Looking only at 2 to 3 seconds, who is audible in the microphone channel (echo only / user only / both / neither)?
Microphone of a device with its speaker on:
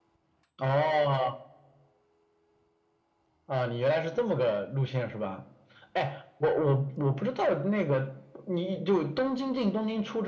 neither